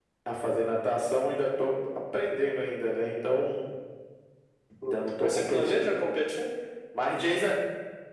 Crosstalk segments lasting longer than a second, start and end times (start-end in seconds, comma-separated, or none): 4.8-6.1